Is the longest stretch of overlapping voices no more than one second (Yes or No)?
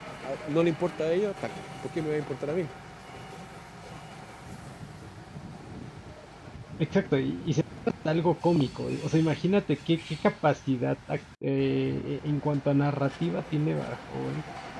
Yes